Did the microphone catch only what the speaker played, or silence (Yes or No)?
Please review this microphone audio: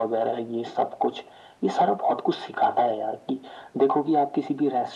Yes